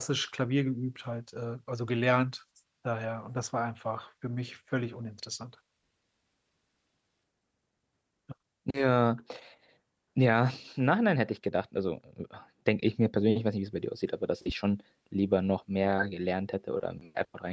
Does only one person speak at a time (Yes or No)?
Yes